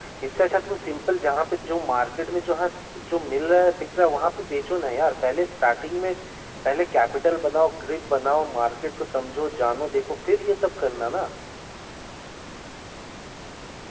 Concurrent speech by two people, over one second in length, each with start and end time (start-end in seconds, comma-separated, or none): none